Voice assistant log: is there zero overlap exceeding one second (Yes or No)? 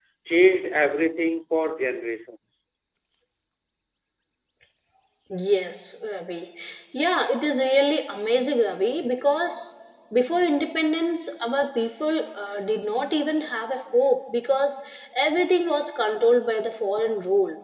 Yes